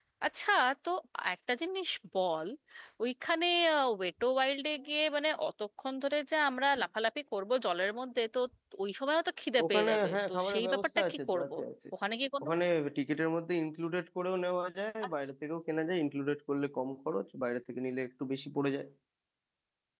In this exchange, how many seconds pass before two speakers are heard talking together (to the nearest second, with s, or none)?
10 s